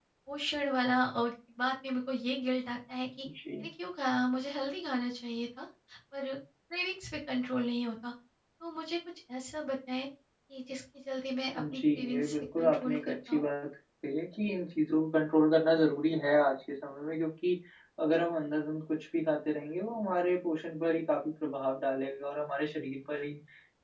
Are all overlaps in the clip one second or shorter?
No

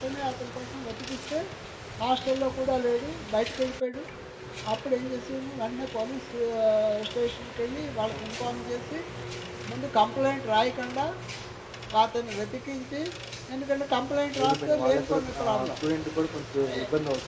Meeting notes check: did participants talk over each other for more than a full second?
Yes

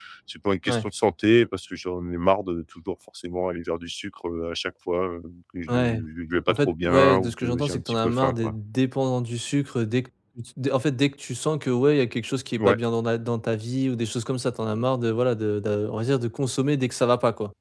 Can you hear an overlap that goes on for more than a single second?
Yes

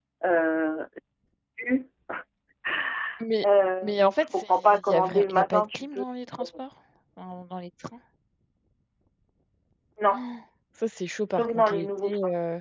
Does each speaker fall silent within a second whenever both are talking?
No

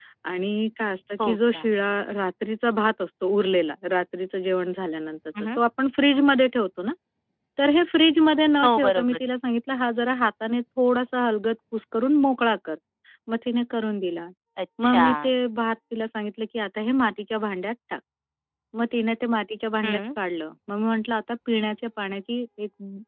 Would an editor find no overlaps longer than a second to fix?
Yes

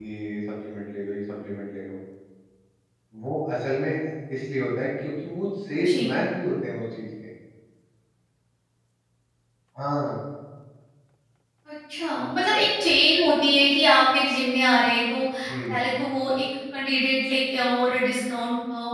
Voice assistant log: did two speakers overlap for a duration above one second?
No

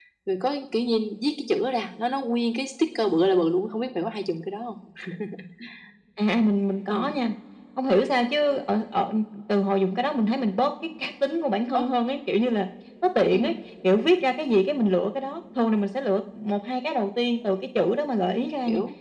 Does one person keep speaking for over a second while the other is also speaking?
No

